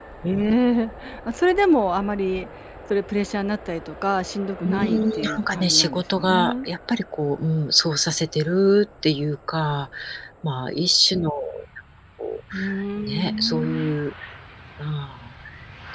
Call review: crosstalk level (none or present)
present